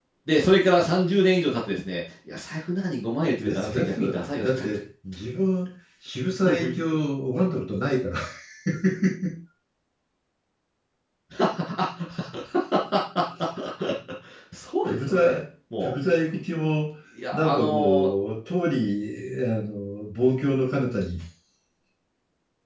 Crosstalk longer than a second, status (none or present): present